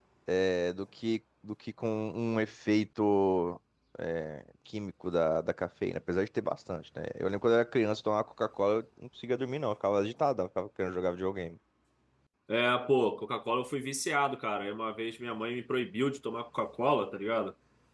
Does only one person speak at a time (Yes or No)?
Yes